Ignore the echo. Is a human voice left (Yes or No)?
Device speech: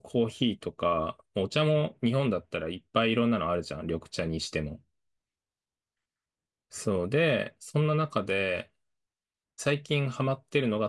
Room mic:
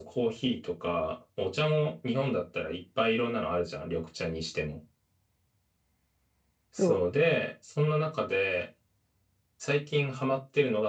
Yes